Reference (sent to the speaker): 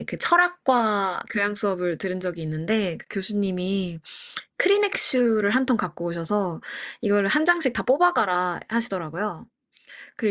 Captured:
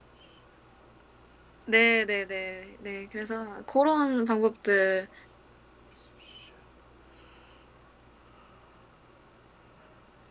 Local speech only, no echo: 네. 네네. 네. 그래서 고런 방법들

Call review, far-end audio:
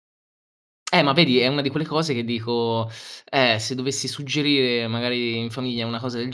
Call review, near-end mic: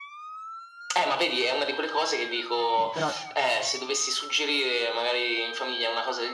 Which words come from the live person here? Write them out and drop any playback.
Eh, però

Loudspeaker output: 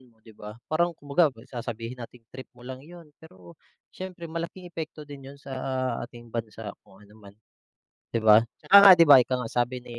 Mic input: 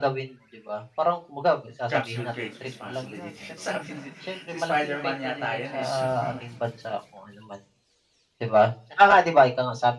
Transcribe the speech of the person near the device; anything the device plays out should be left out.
"Comes with great responsibility." sabi ni si Spiderman yata yan eh, si Superman.

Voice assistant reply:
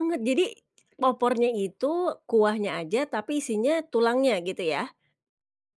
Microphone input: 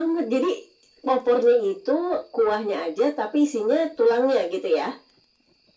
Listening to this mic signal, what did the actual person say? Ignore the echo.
none

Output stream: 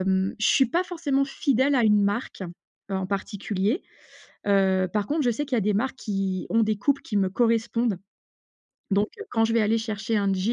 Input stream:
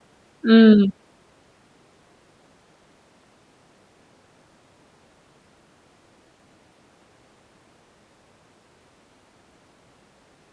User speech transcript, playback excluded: Mmh.

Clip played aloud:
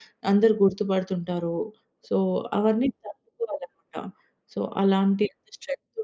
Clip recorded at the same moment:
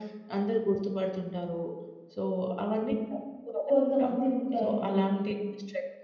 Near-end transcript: కొంతమంది ఉంటారండి

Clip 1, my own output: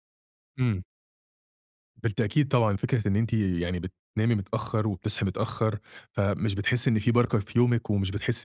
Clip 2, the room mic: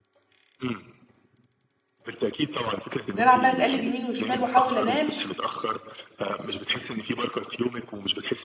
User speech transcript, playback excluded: أنا عمالة اتقلب يمين وشمال وأحاول أنام،

